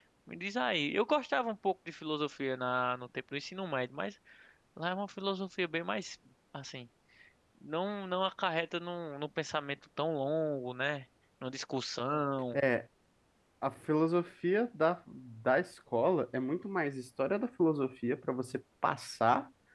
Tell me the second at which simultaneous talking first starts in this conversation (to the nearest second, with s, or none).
none